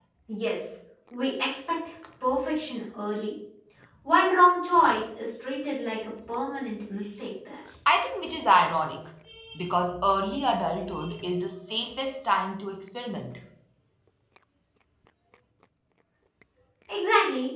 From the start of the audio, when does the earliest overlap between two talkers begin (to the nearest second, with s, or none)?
none